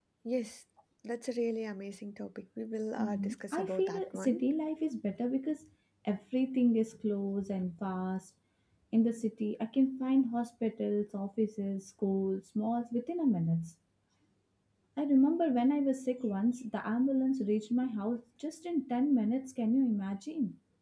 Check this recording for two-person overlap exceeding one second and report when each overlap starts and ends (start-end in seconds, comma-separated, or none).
3.0-4.4